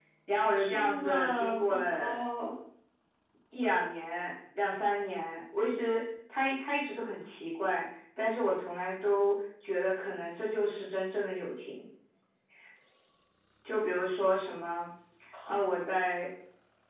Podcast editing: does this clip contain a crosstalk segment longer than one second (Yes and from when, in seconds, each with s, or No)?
Yes, from 0.6 s